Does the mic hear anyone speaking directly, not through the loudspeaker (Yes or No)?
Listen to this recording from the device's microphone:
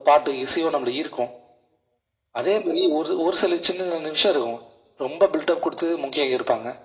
No